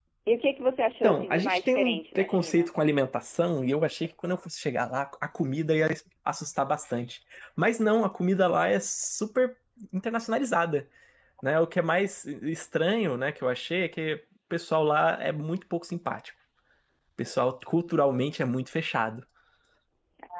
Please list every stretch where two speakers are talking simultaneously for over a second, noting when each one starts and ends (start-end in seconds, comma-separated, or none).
1.0-2.7